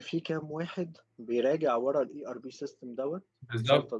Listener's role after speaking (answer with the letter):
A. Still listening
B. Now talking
B